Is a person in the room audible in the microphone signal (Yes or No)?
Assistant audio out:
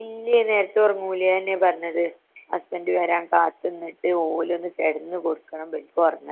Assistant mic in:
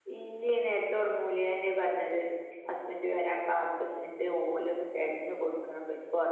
No